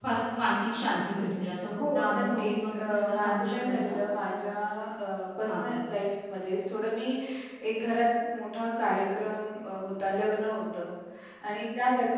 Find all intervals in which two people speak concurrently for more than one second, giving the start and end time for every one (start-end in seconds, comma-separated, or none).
1.9-4.0